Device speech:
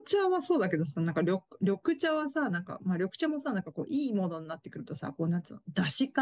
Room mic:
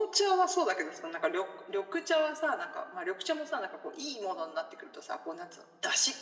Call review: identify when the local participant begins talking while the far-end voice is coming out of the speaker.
none

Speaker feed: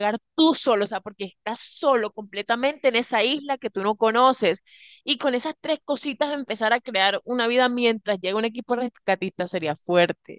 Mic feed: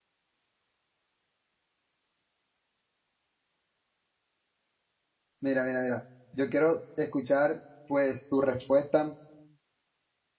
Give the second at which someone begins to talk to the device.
5.4 s

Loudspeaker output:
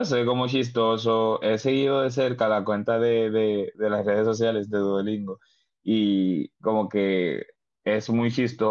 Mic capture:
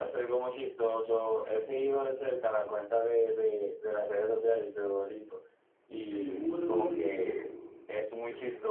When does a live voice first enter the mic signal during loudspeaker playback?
6.1 s

